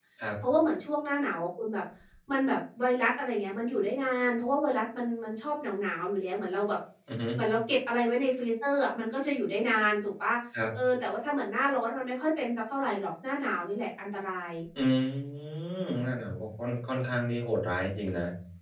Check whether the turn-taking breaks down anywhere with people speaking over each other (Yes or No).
No